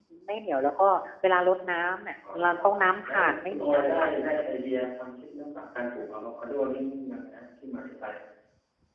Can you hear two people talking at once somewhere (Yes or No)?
Yes